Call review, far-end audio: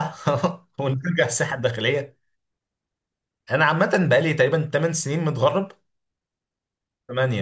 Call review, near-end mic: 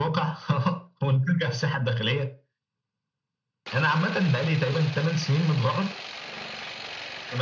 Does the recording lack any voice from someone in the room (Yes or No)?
Yes